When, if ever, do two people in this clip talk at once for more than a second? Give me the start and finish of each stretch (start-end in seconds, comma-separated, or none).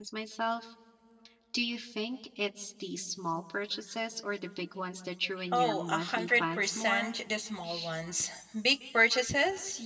5.5-7.1